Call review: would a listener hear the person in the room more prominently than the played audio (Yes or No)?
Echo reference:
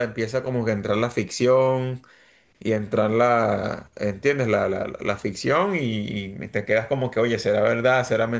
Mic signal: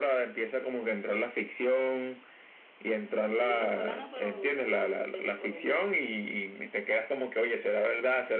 No